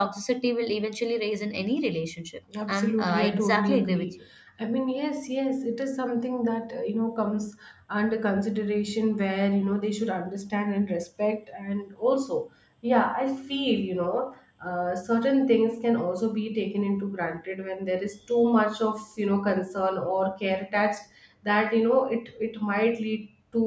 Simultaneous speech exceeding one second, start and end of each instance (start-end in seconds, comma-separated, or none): 2.7-4.1